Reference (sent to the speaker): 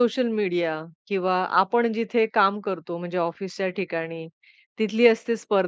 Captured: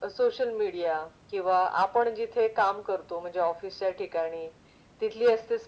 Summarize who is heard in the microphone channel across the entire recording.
echo only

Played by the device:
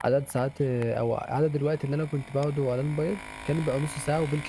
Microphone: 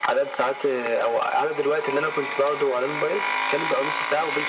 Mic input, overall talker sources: echo only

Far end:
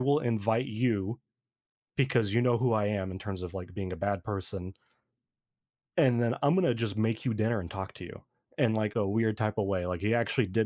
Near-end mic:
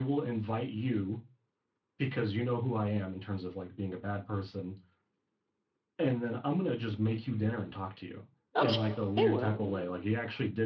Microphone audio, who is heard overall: both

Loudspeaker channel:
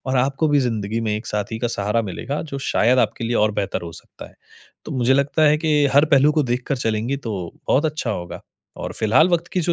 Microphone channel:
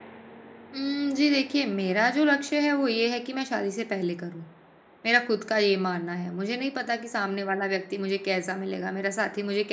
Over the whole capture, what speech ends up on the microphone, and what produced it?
user only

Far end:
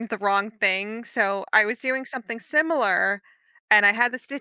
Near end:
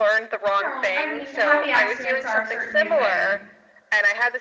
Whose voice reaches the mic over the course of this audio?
both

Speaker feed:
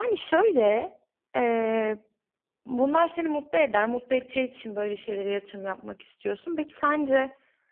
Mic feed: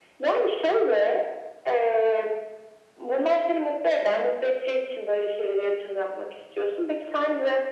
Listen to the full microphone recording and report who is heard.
echo only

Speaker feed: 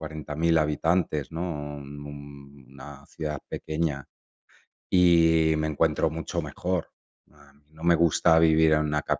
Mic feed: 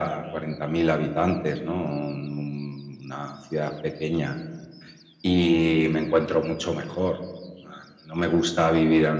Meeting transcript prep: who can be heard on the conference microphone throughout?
echo only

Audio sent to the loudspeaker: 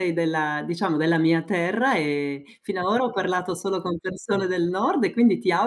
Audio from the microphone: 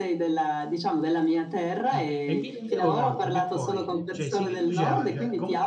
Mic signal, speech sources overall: both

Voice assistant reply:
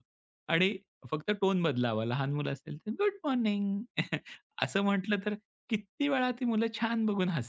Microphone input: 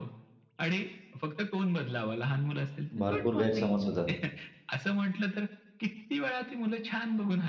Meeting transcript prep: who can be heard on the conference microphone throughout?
both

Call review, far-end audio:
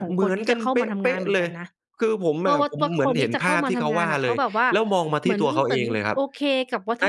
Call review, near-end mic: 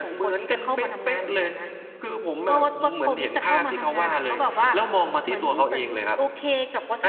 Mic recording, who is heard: echo only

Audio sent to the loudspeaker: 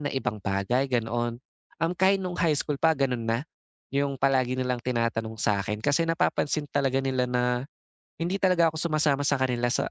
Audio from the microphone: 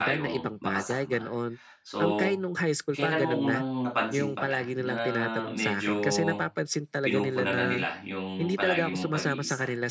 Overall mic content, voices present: both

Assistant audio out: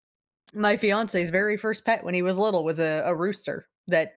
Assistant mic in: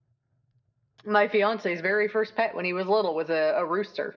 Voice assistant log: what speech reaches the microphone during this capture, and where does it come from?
echo only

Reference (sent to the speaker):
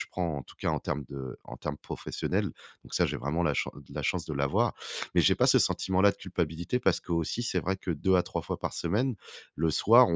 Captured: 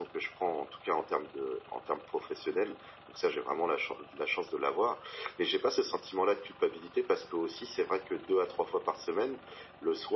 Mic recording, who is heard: echo only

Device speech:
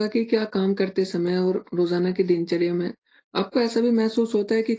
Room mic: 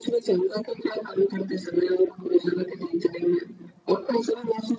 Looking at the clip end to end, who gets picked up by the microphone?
echo only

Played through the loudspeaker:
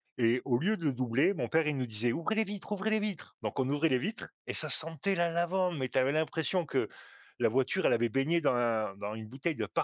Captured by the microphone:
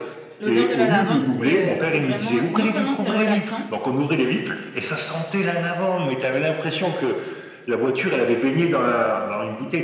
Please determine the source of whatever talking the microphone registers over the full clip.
both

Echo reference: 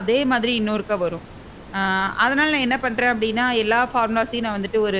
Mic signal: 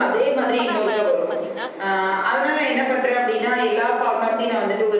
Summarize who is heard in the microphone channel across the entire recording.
both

